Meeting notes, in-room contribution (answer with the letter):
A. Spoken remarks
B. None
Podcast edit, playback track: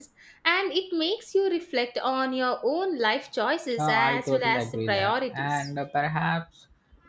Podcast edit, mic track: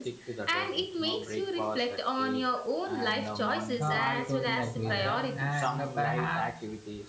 A